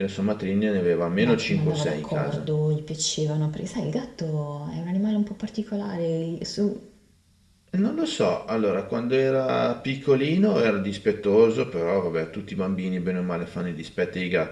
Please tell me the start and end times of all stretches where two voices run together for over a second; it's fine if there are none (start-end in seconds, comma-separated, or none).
1.2-2.5